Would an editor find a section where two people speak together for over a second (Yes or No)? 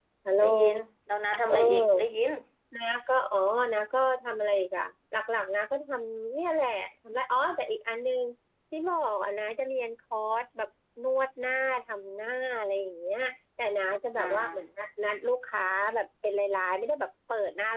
No